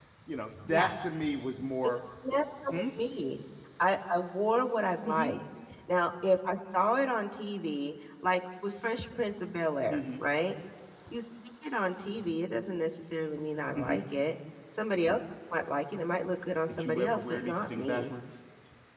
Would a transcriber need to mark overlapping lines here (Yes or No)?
Yes